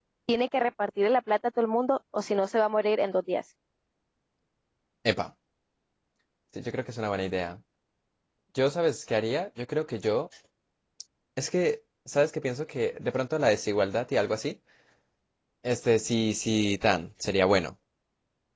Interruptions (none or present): none